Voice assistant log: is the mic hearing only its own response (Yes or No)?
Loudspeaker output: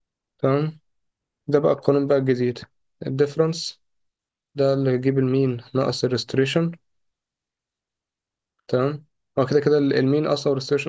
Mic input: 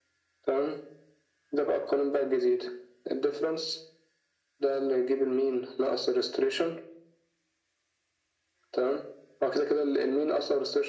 Yes